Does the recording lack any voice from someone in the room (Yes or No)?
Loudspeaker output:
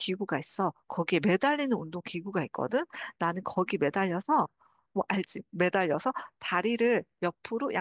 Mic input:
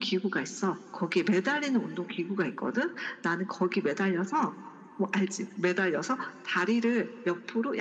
Yes